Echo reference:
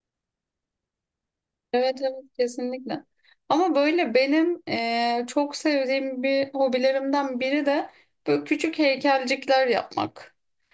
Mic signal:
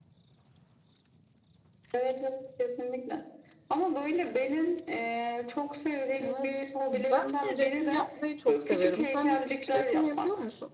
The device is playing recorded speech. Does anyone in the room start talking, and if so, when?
6.2 s

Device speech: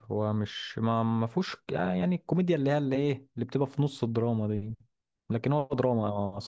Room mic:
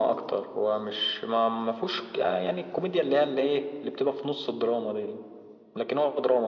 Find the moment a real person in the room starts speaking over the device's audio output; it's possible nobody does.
none

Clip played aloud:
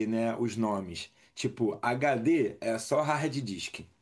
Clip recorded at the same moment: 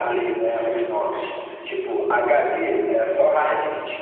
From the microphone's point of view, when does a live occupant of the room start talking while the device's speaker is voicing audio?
0.5 s

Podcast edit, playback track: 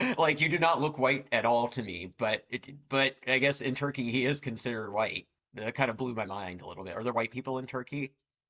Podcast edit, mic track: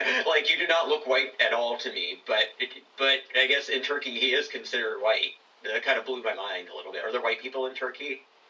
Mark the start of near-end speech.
none

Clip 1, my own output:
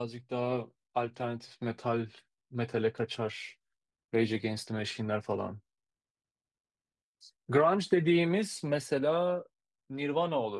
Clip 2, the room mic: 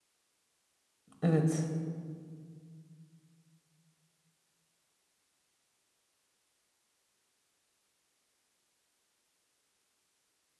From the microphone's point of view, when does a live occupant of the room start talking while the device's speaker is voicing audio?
1.2 s

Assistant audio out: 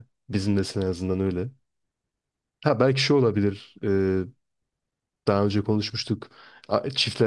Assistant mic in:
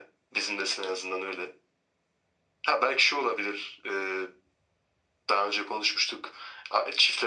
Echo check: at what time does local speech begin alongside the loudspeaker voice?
none

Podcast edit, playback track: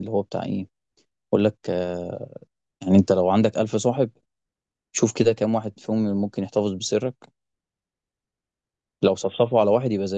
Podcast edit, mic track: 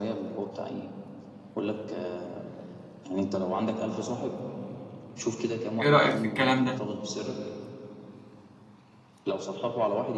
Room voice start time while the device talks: 5.8 s

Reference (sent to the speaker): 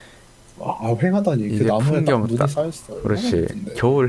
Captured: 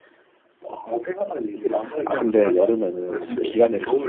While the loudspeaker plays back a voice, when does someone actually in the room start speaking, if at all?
2.0 s

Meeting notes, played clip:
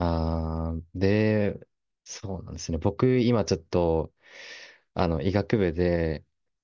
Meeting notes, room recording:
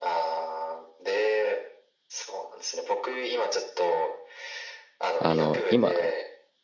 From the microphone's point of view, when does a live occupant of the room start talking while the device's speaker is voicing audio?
5.2 s

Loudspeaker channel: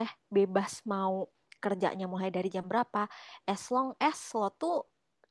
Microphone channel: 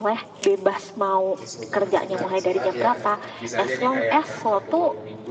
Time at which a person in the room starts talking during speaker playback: 1.4 s

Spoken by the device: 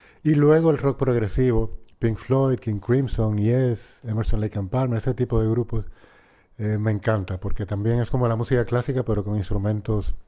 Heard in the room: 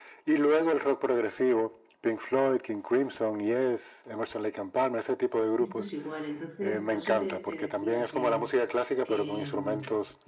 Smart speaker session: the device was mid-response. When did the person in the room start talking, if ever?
5.5 s

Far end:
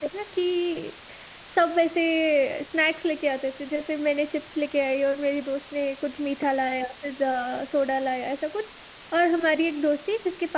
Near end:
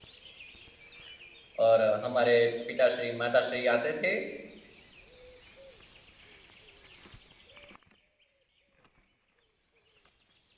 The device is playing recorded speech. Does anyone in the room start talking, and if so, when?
1.6 s

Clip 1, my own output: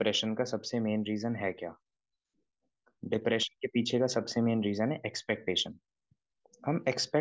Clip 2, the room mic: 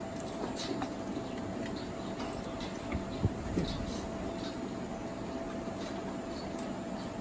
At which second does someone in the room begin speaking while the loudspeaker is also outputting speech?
none

